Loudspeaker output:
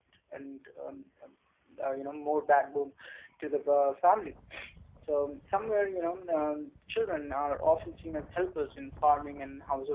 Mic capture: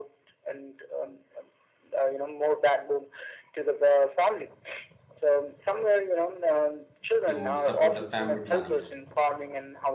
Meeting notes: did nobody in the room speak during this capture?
No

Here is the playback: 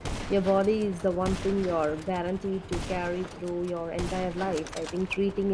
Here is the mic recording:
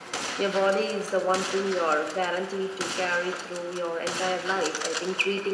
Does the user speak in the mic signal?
No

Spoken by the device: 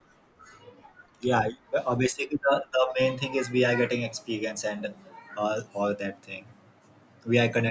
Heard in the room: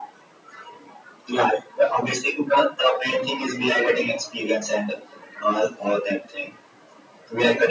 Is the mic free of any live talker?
Yes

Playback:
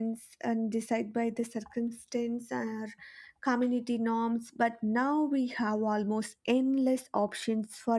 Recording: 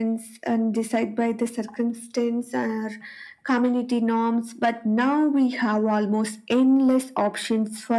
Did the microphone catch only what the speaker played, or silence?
Yes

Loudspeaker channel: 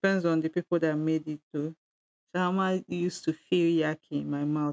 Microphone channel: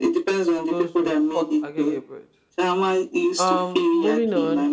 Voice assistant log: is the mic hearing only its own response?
No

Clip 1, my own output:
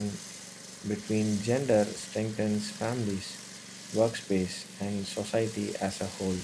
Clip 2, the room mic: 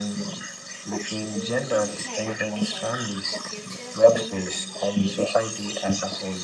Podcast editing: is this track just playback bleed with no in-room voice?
No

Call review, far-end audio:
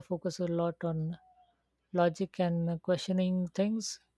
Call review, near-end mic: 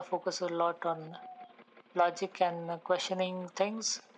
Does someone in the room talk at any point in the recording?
No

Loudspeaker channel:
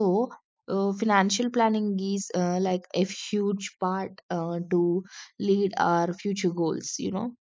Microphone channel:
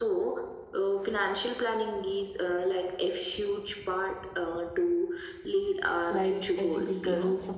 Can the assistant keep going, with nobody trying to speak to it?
No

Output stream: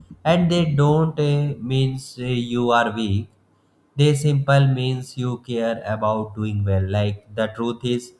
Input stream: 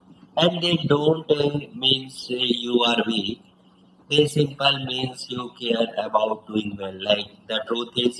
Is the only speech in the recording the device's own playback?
Yes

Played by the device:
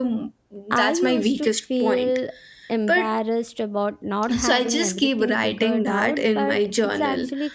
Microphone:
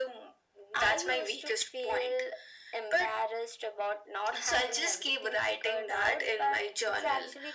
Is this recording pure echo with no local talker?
Yes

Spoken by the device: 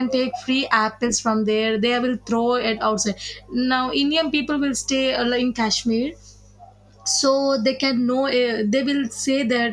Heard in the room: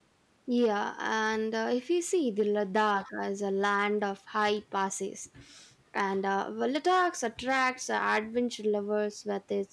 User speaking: Yes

